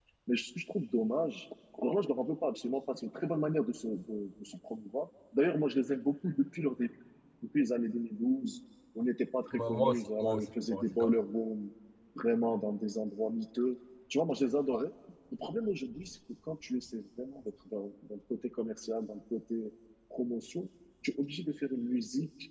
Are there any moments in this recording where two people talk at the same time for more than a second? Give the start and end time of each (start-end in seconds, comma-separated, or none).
9.5-11.2